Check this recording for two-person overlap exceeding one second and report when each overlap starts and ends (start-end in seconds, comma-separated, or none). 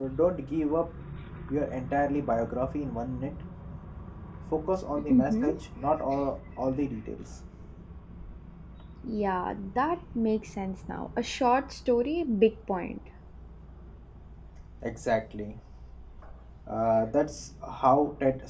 none